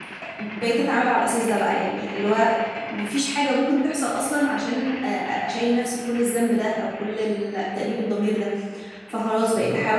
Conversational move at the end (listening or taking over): listening